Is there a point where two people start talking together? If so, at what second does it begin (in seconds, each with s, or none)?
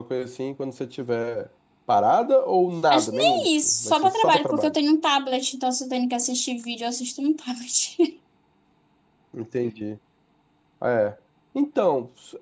2.9 s